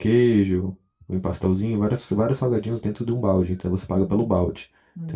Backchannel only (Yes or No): No